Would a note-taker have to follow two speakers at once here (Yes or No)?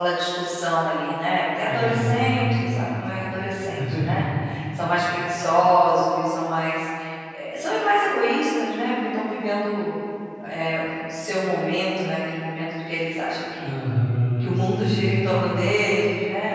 Yes